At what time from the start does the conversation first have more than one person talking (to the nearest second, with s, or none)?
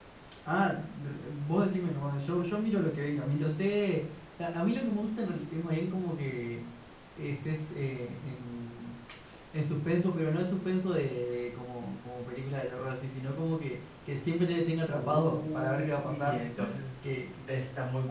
15 s